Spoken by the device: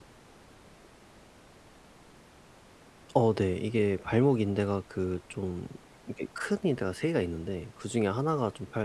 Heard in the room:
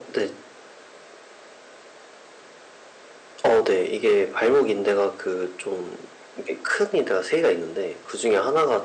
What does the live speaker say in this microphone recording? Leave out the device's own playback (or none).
none